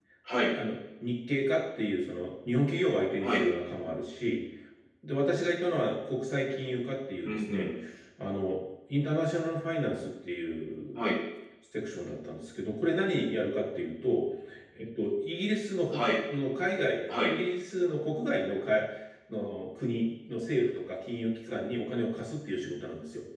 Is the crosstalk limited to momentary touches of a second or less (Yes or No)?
Yes